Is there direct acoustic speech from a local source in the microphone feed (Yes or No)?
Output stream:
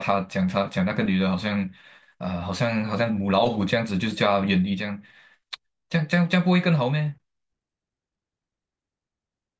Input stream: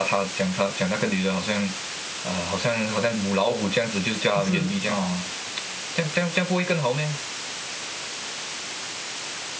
Yes